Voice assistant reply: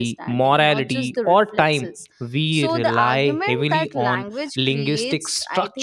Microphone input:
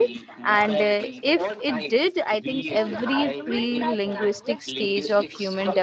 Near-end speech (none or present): present